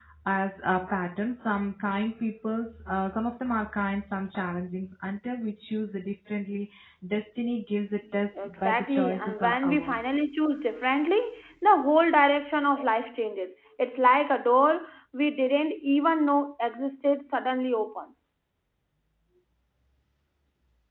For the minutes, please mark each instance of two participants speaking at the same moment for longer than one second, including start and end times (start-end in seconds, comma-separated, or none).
8.1-10.1